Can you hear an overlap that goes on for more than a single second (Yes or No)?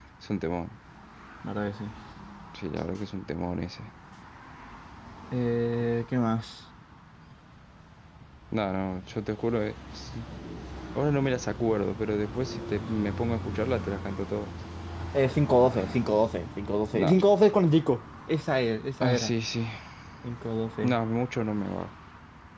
No